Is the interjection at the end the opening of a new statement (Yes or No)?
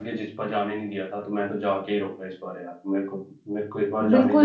Yes